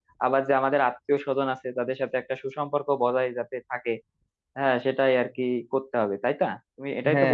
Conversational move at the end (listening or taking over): taking over